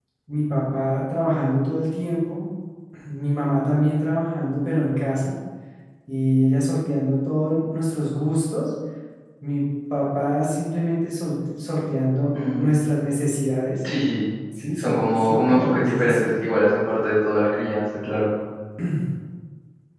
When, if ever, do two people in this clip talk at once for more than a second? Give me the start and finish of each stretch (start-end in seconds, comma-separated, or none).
14.8-16.3